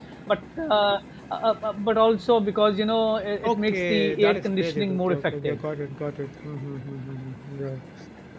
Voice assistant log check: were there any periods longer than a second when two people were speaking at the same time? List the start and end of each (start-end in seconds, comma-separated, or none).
3.4-5.6